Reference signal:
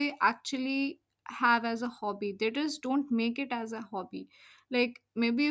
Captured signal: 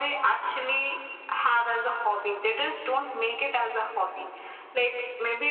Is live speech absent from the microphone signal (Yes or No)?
Yes